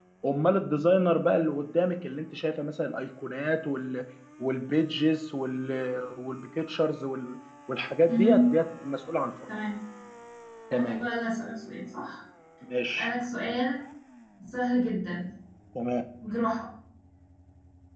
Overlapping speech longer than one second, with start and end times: none

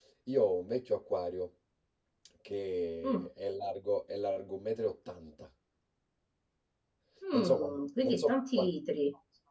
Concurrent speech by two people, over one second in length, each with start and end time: 7.3-8.7

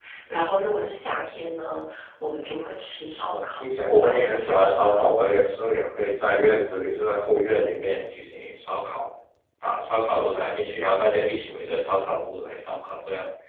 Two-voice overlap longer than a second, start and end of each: 3.2-5.1

